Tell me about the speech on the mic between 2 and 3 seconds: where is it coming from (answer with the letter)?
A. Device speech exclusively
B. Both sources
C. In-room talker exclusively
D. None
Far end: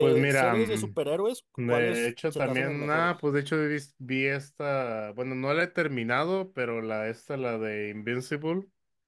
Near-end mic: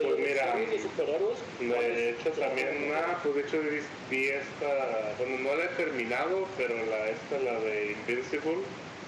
A